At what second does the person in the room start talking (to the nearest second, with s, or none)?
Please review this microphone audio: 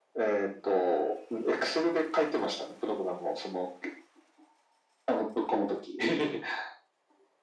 none